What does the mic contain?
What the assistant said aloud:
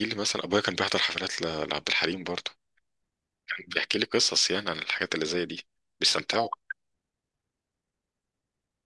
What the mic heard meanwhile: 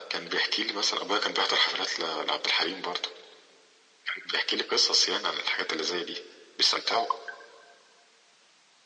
echo only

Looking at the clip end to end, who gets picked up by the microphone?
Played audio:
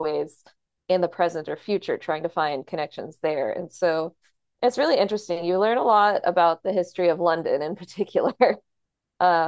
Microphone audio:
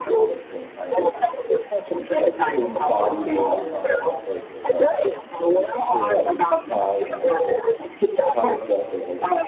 both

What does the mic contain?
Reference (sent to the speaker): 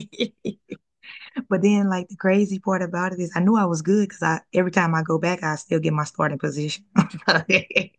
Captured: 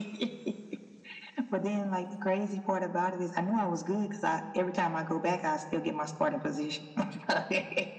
echo only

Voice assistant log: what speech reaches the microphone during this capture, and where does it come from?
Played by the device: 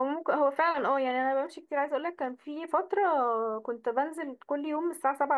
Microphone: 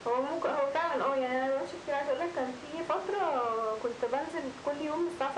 echo only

